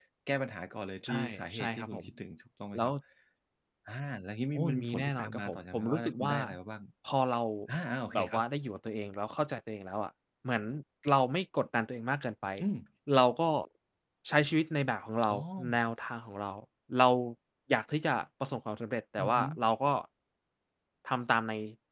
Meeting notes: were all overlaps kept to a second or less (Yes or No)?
No